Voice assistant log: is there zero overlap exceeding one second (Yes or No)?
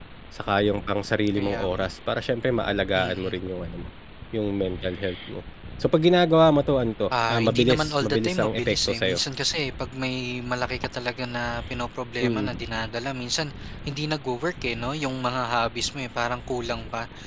No